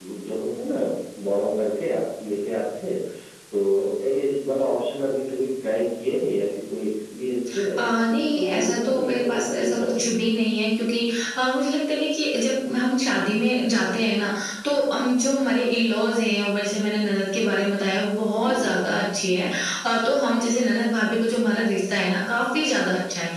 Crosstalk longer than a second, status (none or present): present